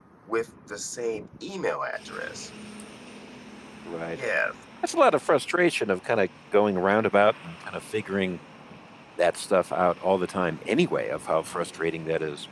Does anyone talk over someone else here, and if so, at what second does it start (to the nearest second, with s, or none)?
none